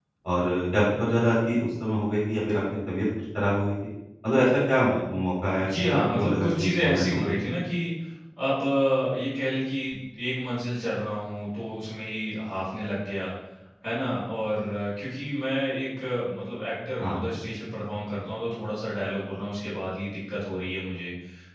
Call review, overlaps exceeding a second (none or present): present